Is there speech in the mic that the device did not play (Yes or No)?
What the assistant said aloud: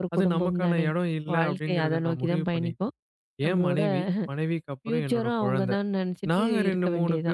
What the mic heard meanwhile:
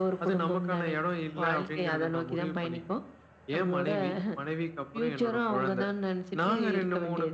No